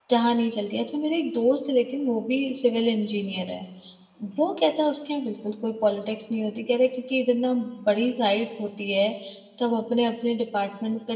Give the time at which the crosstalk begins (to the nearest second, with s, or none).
none